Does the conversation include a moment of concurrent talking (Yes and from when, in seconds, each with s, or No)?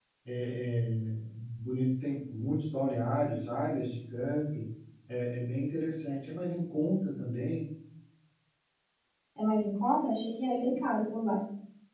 No